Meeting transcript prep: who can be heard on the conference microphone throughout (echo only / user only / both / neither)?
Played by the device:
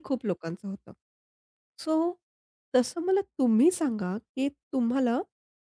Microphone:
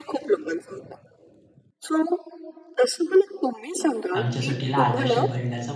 both